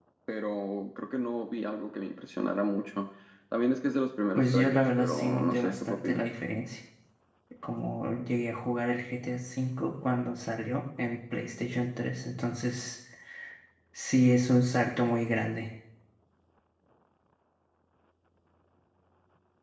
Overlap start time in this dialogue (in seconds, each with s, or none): 4.3 s